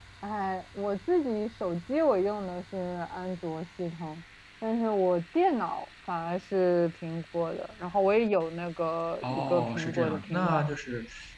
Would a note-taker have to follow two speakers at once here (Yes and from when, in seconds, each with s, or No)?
Yes, from 9.2 s